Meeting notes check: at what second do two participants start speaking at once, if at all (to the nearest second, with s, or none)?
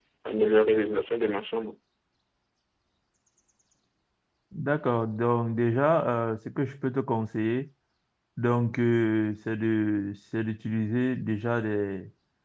none